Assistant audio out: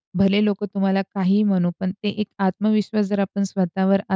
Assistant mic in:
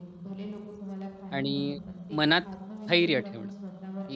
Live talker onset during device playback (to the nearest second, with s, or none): 1 s